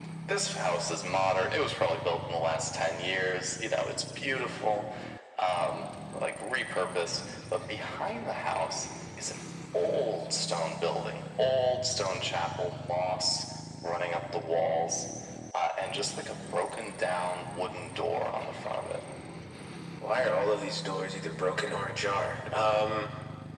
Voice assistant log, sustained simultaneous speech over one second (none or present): none